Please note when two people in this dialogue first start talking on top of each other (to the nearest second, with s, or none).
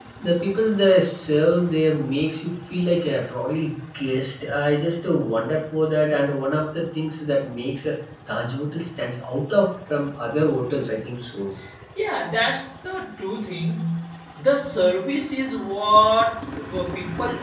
none